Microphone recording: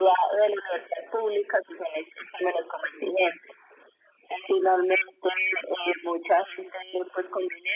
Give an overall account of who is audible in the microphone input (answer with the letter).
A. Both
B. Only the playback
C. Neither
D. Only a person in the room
B